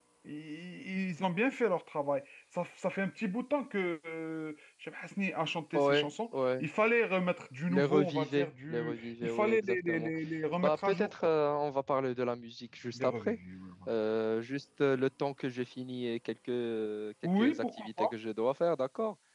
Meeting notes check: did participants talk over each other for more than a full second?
Yes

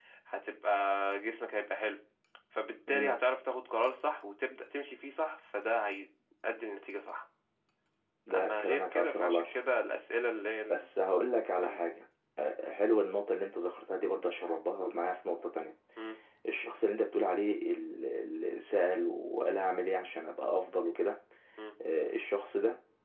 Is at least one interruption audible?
Yes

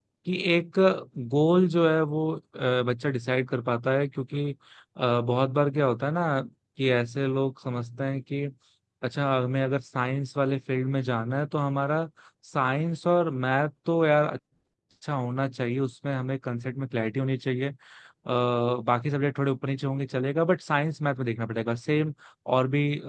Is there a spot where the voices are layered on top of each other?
No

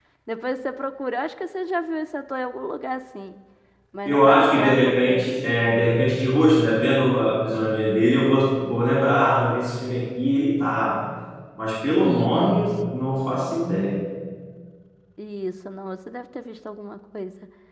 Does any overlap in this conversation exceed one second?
Yes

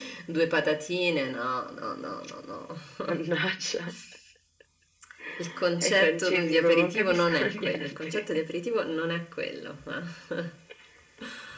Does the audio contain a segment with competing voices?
Yes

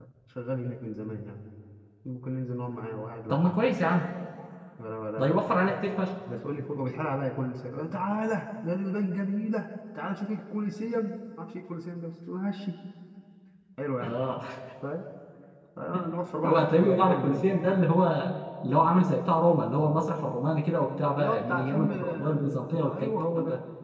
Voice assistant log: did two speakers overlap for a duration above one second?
Yes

